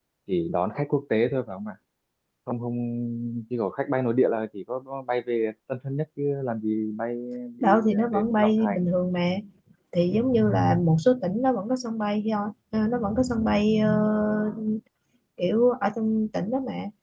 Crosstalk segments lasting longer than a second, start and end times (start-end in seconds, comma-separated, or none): 7.6-8.9